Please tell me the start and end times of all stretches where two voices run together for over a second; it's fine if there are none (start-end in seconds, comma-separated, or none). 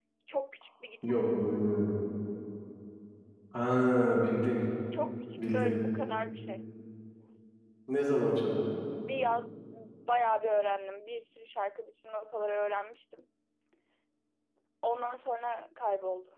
none